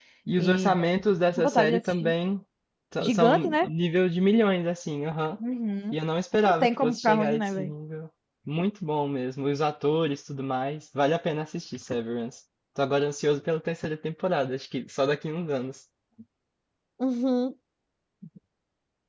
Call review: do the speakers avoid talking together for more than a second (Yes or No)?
No